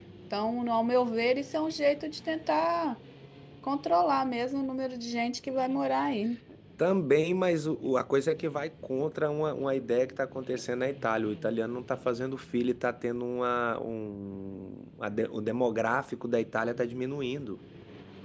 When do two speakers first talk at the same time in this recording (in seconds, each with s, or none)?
none